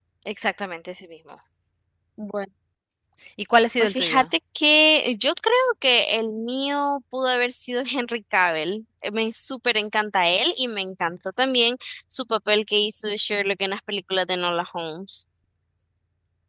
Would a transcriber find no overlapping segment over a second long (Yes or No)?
Yes